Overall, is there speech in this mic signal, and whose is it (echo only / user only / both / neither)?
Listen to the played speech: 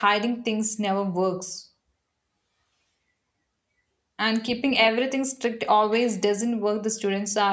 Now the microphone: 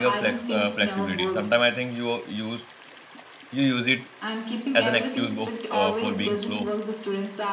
both